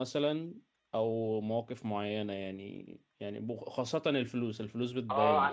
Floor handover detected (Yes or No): Yes